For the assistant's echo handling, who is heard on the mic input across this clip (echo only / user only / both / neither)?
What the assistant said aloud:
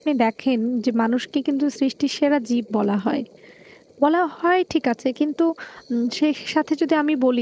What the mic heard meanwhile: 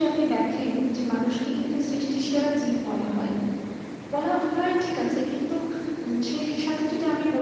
echo only